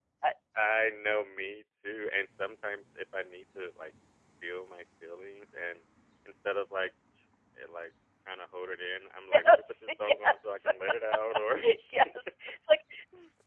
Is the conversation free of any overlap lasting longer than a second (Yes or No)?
No